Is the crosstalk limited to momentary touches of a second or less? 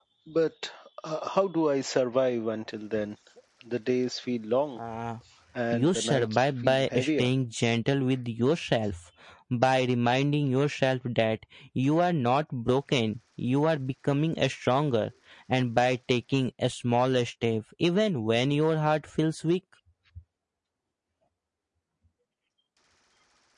No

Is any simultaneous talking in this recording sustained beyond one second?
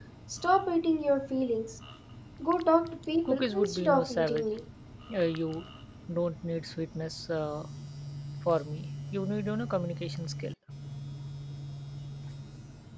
Yes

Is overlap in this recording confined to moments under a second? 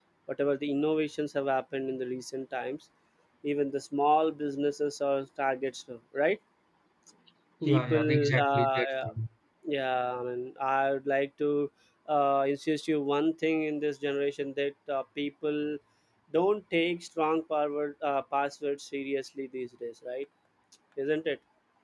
No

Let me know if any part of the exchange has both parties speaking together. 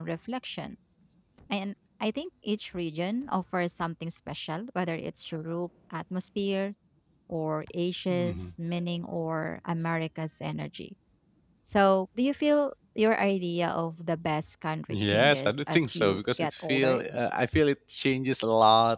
Yes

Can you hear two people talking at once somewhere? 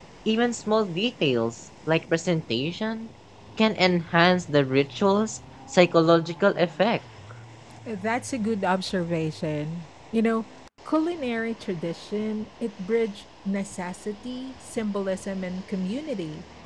No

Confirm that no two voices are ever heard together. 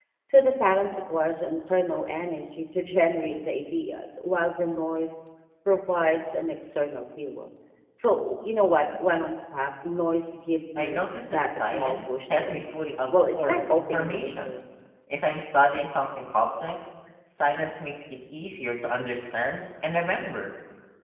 No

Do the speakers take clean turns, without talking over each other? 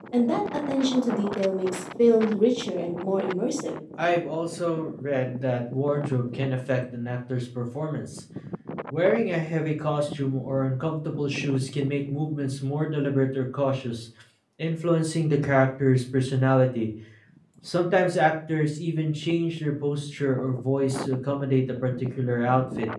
Yes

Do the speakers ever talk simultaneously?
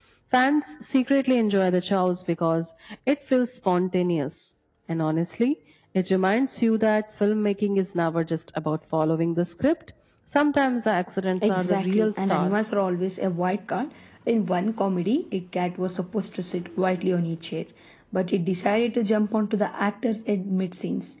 Yes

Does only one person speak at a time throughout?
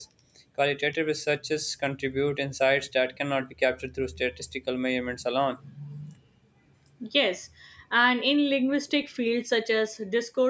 Yes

